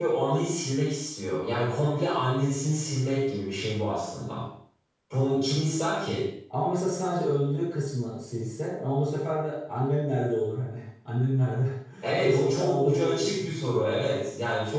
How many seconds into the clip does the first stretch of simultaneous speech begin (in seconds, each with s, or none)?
12.2 s